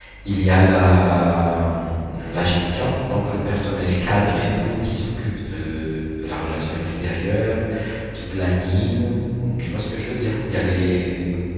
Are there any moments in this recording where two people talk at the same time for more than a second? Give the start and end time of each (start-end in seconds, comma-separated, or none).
none